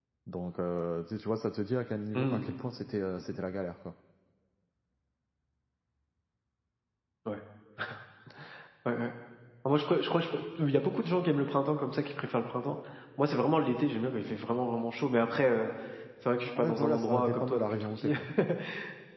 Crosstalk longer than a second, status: present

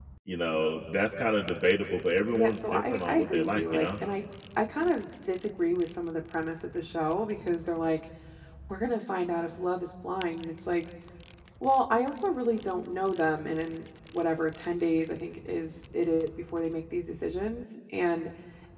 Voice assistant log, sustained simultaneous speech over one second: present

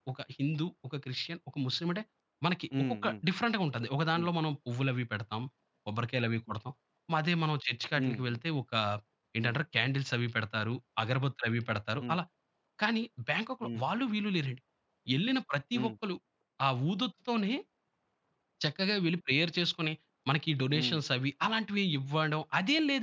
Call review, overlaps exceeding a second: none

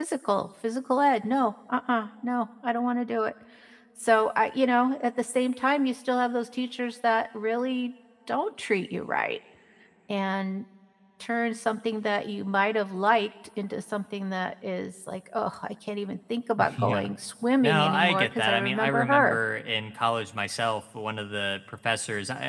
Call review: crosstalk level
present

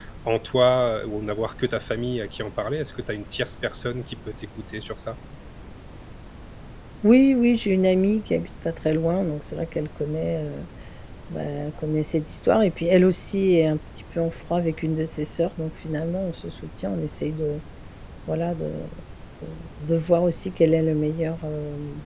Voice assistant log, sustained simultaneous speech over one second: none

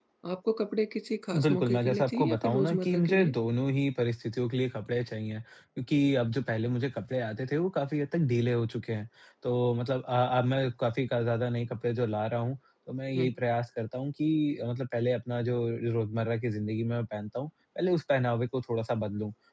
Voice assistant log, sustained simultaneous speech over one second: present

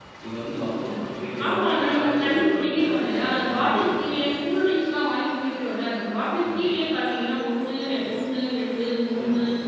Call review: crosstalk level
present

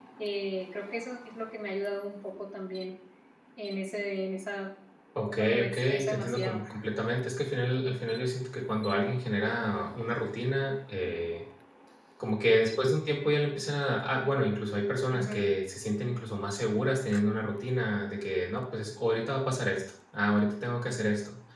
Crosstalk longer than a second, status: present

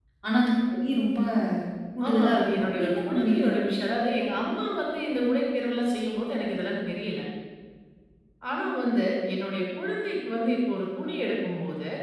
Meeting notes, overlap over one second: present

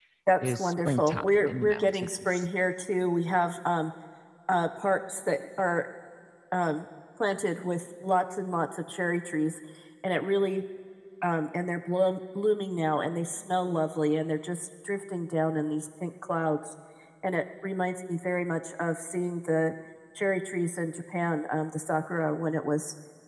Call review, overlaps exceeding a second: present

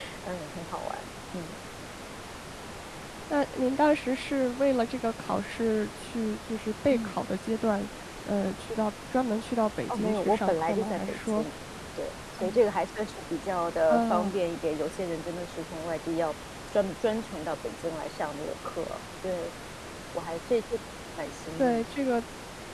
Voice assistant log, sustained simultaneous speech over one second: present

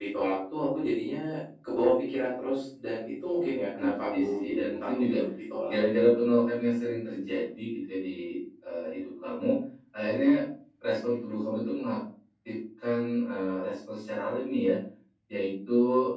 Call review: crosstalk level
present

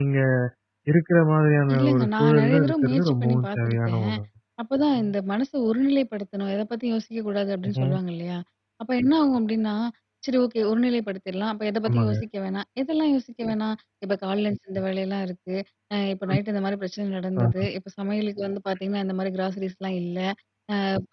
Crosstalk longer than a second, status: present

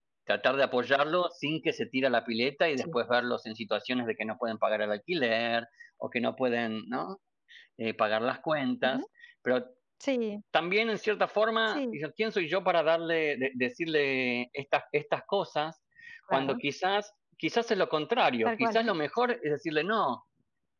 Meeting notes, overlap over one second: none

